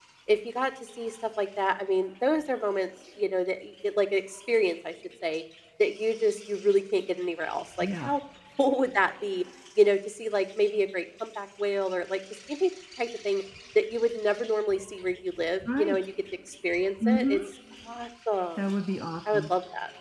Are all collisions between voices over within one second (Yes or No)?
Yes